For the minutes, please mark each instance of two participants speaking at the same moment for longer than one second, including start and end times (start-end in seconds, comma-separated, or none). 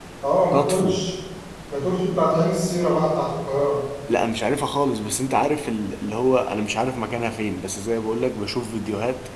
none